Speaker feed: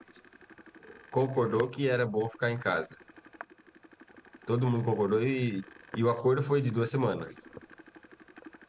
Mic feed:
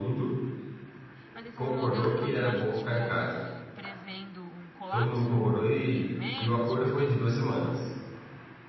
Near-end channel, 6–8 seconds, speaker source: both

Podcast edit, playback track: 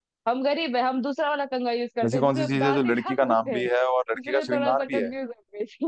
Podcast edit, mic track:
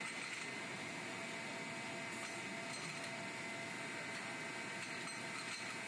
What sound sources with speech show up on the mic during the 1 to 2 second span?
neither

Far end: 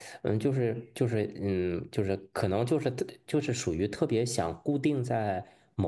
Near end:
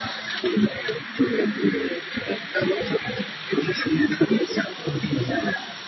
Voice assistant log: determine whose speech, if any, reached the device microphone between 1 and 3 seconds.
echo only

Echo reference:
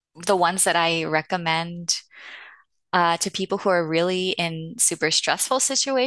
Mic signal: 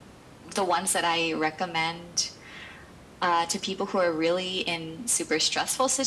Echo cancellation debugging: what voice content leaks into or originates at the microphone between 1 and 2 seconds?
echo only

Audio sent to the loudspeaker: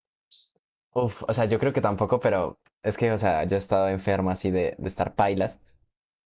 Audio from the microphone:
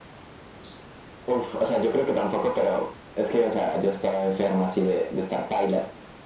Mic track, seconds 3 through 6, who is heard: echo only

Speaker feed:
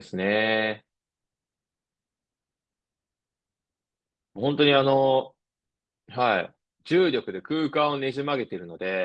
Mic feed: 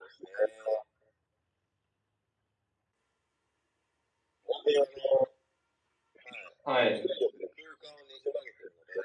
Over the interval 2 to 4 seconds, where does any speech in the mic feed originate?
neither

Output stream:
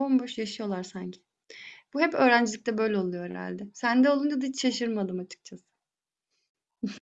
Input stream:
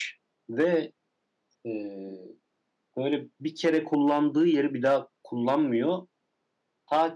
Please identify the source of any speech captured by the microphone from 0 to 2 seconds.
user only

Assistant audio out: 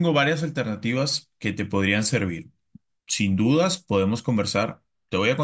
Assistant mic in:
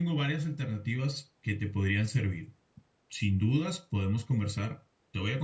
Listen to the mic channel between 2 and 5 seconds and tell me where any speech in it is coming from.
echo only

